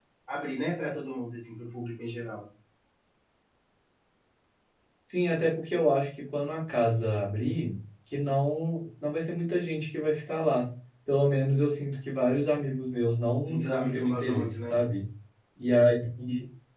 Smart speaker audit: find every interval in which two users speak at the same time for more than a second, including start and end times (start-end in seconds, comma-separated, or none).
13.4-14.8